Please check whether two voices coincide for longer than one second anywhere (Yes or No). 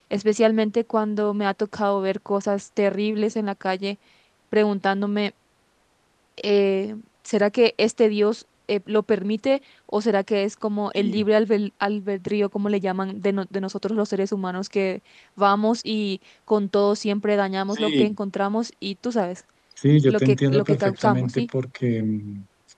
Yes